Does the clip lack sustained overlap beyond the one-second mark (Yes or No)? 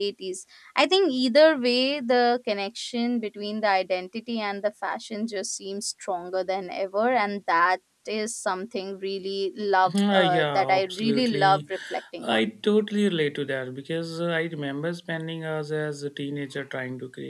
No